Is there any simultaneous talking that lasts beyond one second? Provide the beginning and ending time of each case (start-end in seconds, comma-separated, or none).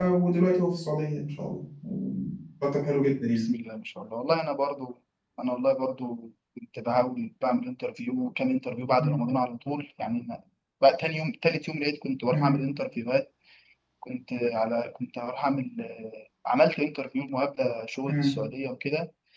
none